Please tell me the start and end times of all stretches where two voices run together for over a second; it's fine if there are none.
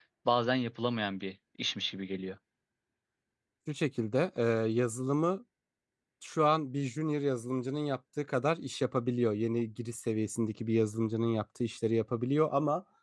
none

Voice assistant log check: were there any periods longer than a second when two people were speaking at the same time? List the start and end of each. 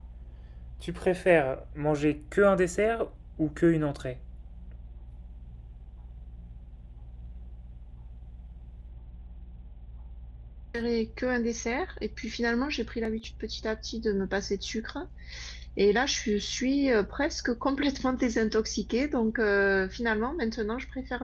none

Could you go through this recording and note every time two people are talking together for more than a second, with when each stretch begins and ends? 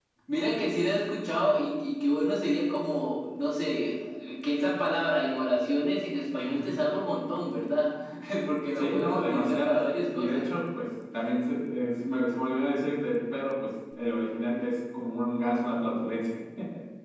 8.8-10.5

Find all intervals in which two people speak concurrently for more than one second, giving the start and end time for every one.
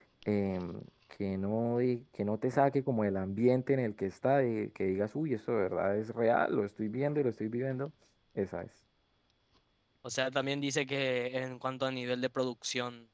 none

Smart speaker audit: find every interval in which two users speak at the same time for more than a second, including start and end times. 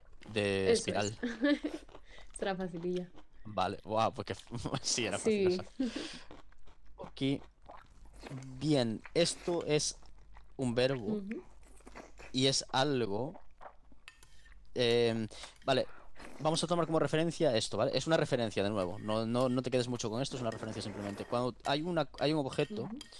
none

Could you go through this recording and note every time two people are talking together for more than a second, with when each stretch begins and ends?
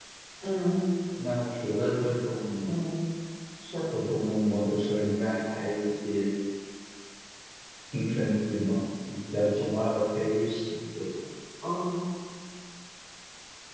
none

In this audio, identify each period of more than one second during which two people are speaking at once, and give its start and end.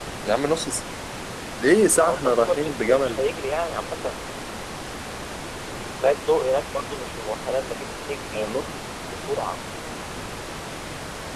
1.9-3.2

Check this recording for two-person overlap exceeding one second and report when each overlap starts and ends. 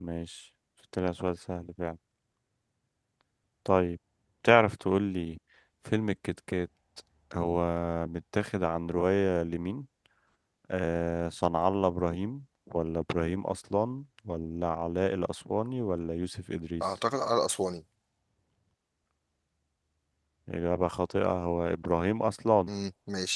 none

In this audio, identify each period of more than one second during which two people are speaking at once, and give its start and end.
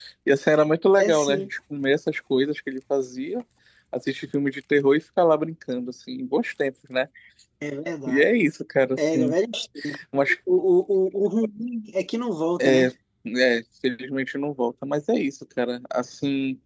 none

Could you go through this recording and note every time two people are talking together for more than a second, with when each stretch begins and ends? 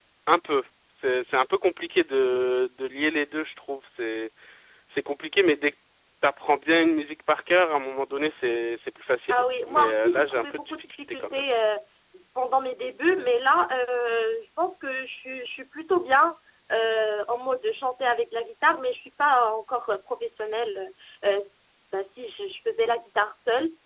9.3-11.4

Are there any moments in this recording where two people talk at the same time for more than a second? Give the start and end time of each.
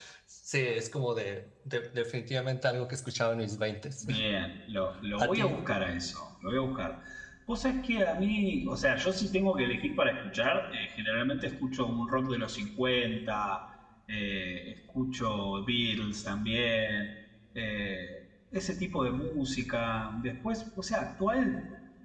none

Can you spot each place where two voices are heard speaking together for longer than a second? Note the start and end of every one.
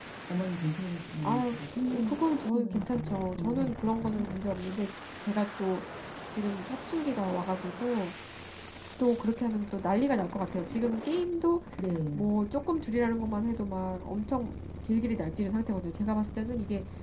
2.0-4.3

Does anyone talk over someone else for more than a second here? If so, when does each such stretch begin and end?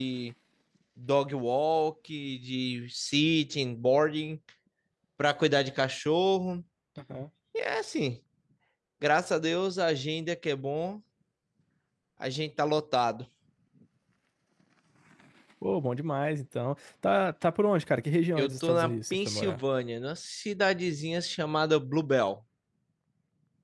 18.4-19.6

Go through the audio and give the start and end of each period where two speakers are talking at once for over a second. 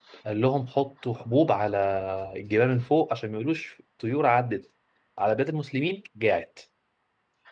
none

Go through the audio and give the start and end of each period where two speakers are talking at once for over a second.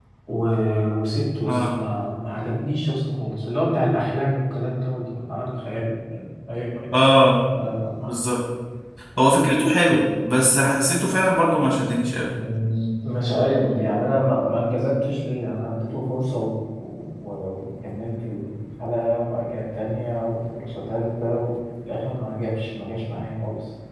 none

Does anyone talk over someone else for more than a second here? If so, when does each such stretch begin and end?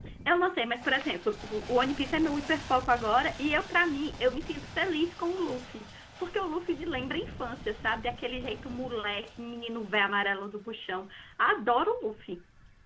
none

